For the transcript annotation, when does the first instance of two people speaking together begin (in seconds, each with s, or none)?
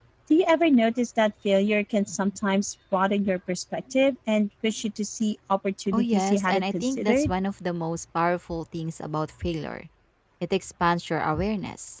5.9 s